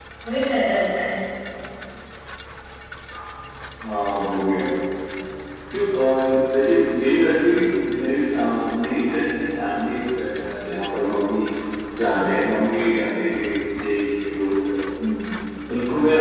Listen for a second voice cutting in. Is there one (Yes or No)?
No